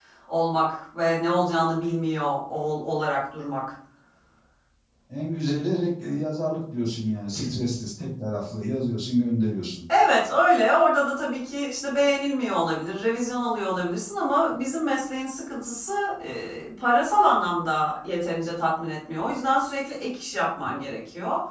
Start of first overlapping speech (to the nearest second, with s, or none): none